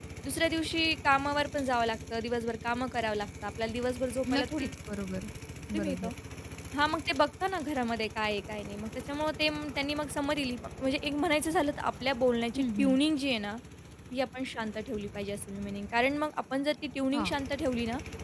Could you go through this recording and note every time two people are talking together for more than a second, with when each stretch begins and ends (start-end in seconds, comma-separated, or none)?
none